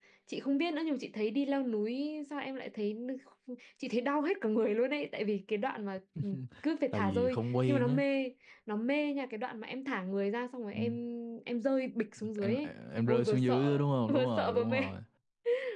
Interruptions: present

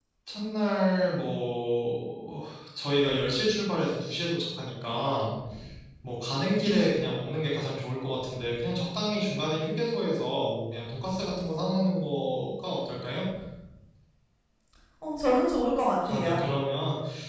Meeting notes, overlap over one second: none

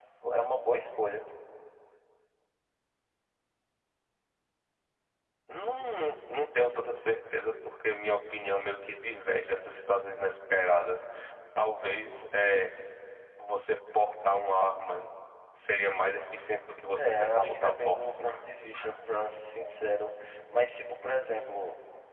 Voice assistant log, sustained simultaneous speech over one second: present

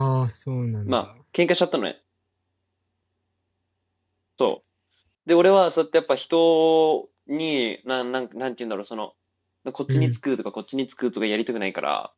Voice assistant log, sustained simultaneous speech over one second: none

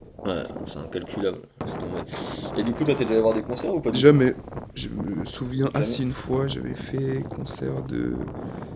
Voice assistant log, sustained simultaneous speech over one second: none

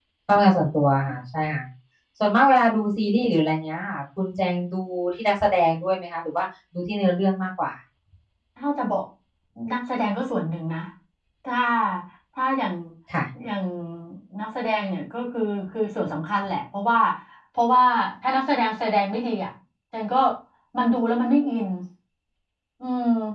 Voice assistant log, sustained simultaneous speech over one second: none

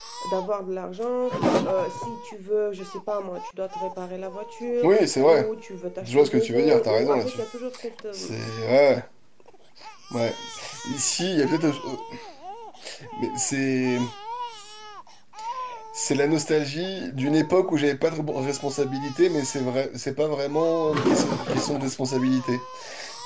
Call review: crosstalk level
present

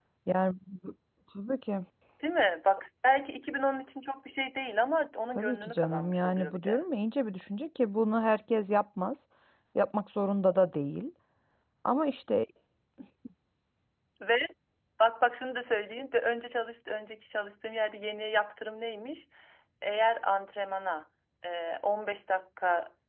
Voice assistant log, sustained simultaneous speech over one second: present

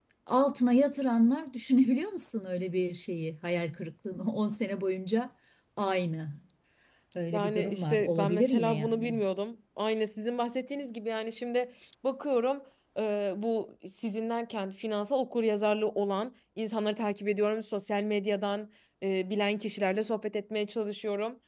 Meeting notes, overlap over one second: present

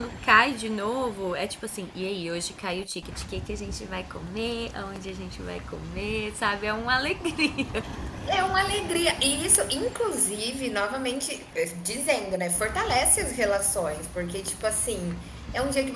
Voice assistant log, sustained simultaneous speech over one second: none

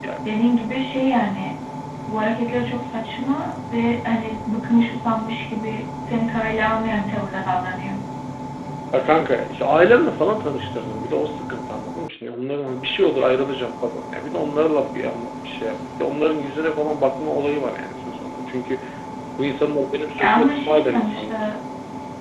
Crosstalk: present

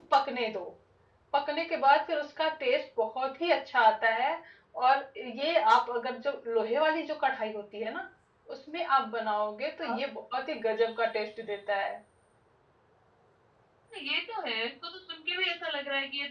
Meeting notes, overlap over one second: none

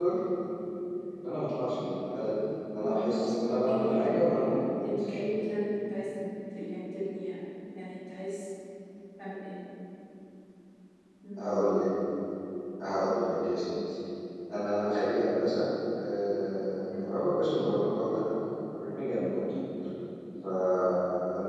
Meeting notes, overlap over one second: present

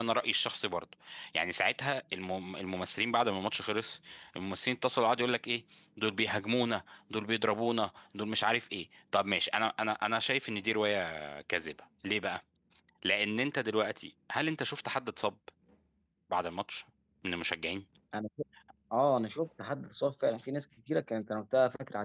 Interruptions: none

